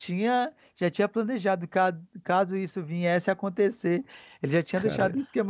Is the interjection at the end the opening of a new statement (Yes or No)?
No